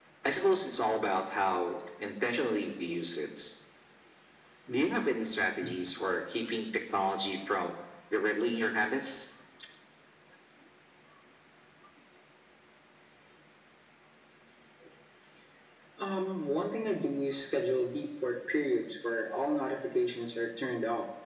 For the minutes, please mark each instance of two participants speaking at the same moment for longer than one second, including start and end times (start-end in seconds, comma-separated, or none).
none